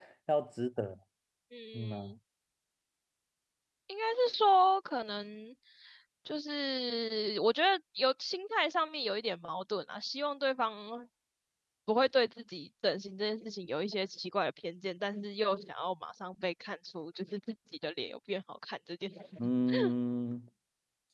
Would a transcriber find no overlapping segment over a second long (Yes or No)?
Yes